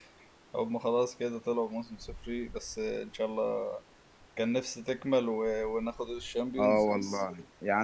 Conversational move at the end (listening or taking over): taking over